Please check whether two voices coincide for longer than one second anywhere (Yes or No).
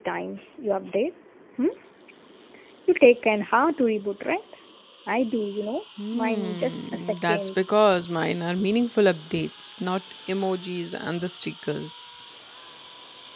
Yes